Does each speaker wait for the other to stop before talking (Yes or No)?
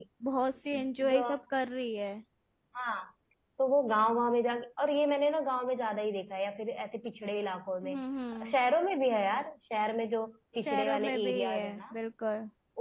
No